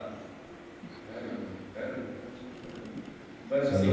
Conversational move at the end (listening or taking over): listening